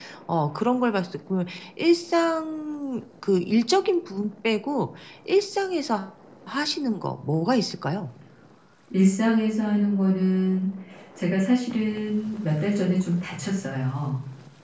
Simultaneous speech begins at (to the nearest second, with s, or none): none